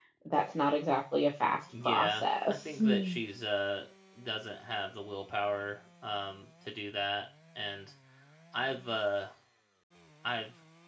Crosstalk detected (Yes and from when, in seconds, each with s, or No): Yes, from 1.7 s